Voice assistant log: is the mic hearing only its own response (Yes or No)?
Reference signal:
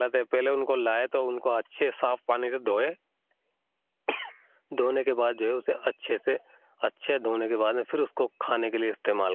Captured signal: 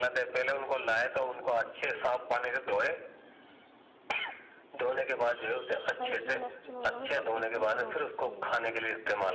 No